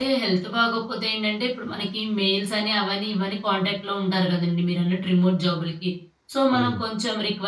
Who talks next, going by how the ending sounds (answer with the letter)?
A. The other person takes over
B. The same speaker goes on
B